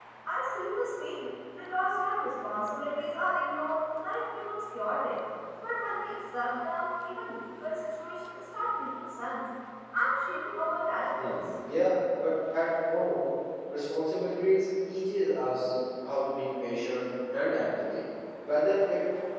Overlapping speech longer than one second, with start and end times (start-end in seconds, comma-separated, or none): none